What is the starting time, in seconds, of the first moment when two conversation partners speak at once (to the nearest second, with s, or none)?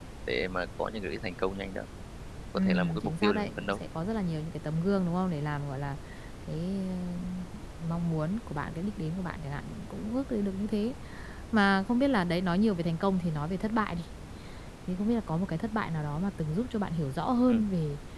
3 s